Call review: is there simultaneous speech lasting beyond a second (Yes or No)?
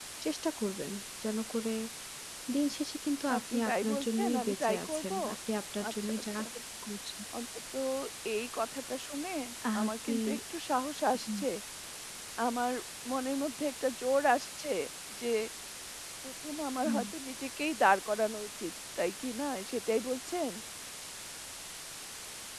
Yes